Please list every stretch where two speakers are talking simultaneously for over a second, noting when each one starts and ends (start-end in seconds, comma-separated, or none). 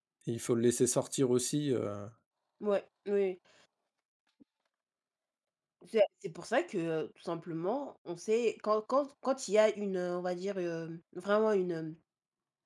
none